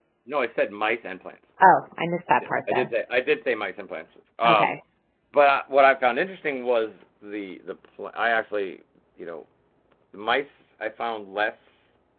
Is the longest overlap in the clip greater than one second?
No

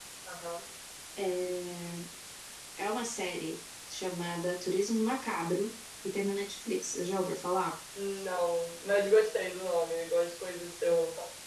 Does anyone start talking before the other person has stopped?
No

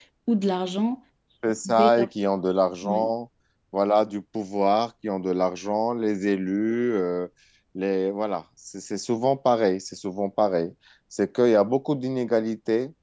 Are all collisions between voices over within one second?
Yes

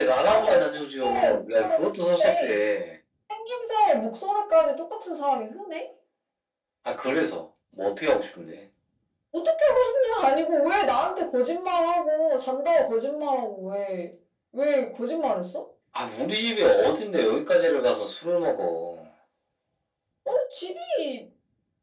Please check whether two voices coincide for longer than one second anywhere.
Yes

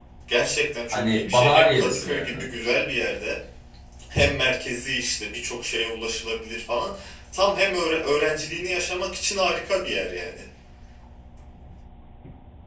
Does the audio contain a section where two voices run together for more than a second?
Yes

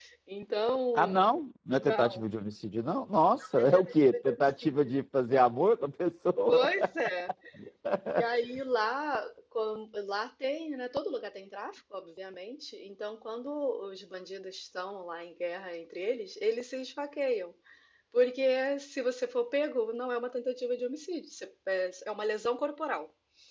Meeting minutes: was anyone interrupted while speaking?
Yes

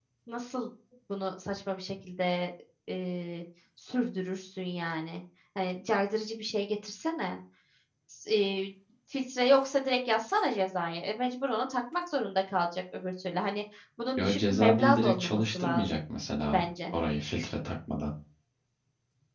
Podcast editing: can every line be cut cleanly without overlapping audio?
No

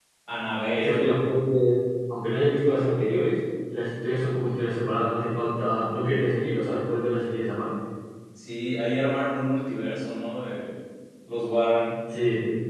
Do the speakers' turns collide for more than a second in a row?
No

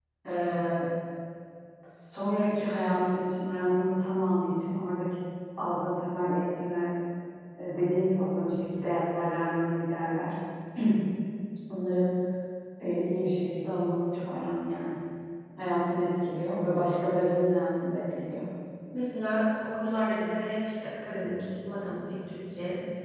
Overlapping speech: No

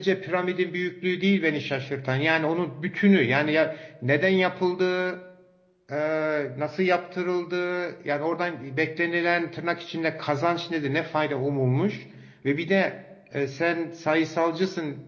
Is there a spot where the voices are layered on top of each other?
No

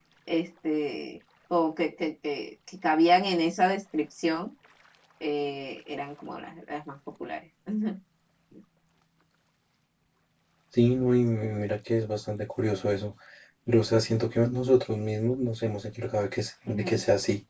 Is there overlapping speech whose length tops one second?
No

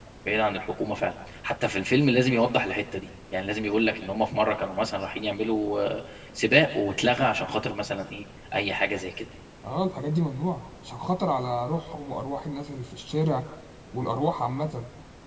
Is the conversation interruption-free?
Yes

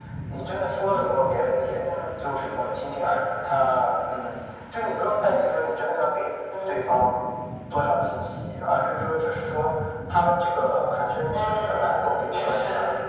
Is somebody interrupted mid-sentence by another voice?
Yes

